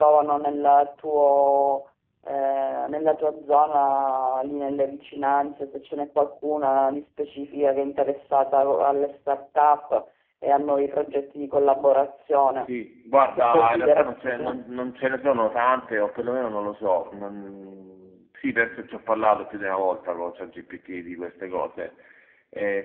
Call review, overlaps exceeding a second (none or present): present